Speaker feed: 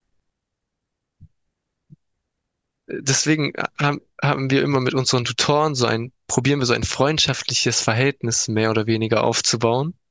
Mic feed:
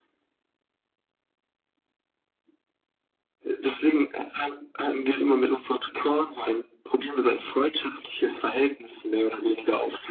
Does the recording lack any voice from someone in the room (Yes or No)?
Yes